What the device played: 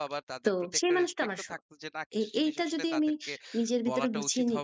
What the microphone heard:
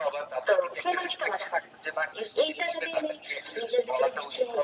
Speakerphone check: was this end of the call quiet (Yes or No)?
Yes